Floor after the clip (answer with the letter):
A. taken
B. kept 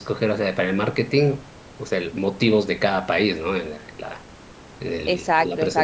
A